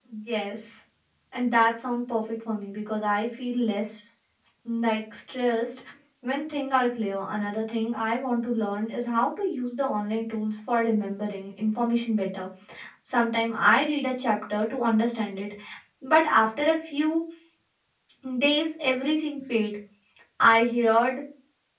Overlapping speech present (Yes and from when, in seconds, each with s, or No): No